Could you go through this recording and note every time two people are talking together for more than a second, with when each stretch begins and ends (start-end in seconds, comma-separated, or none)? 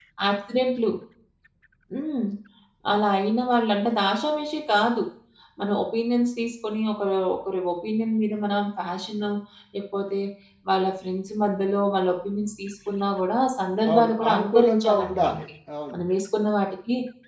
13.9-15.4